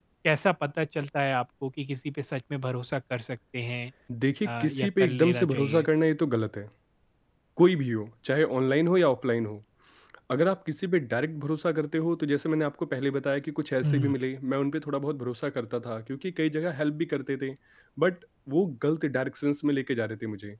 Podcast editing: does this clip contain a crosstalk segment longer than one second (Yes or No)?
Yes